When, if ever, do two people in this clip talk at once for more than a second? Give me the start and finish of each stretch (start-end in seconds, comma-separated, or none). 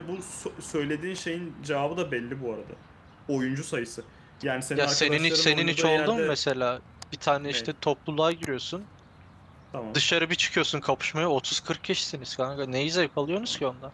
4.8-6.4